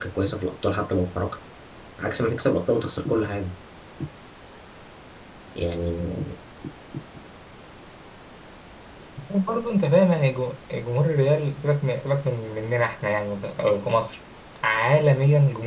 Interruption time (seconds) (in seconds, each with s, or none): none